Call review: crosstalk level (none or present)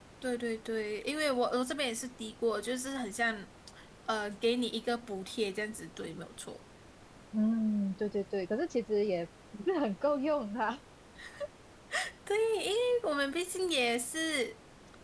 none